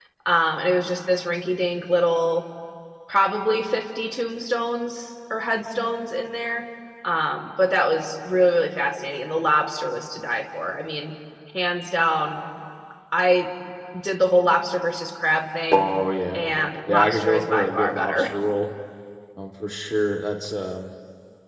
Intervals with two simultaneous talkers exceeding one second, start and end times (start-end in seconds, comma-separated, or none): 16.9-18.3